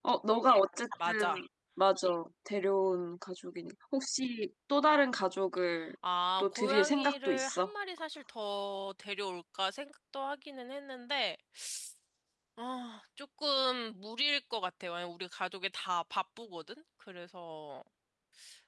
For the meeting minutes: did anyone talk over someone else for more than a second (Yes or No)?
Yes